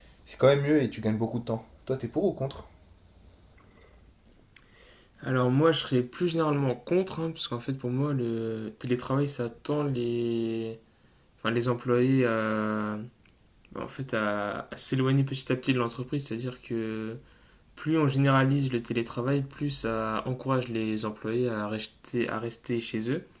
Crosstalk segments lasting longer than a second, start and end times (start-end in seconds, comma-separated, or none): none